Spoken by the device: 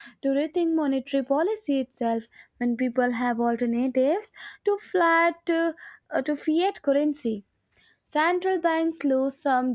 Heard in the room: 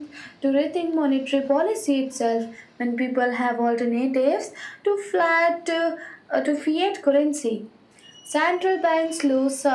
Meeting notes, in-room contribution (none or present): none